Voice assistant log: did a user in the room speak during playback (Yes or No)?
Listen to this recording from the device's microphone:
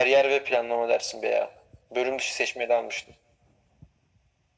No